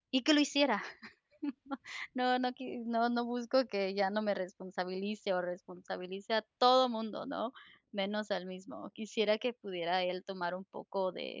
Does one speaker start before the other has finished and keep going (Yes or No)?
No